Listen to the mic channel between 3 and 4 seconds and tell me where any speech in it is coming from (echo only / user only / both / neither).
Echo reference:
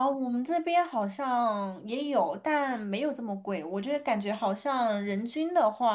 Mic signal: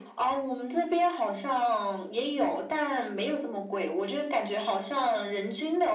echo only